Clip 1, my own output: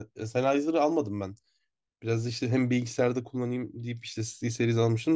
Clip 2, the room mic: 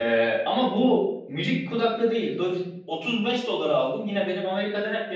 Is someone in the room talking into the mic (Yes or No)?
Yes